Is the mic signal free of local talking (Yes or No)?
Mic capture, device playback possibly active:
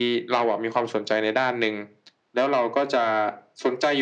Yes